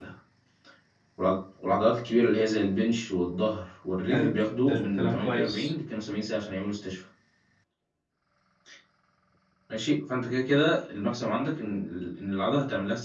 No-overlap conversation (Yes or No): No